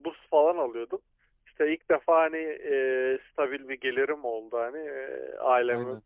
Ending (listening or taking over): listening